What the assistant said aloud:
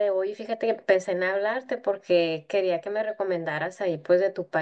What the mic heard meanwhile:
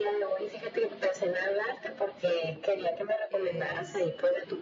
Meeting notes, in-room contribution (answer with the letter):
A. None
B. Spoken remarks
B